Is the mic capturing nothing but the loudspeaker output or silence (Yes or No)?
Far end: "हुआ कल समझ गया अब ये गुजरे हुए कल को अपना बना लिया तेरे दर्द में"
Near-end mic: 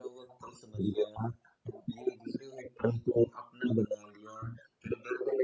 Yes